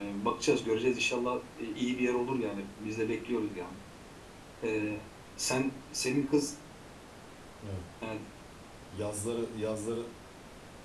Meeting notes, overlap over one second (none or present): none